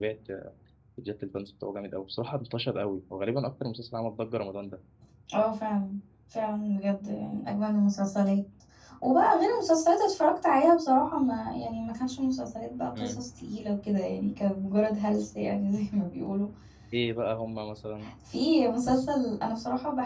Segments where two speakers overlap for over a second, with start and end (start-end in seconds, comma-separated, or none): none